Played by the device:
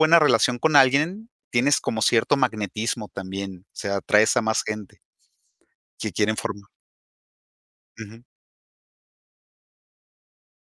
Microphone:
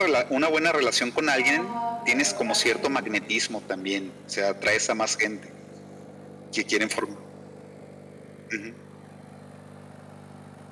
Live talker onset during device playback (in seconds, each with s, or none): 1.1 s